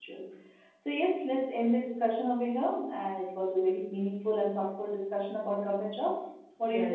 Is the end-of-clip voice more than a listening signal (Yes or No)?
Yes